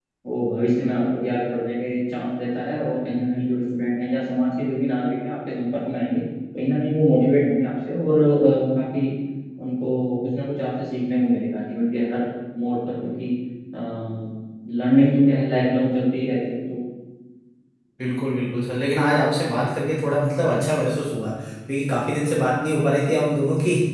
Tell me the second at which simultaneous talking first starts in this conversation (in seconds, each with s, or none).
none